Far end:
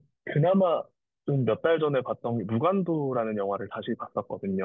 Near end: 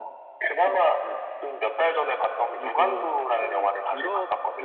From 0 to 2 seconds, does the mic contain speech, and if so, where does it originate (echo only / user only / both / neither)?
both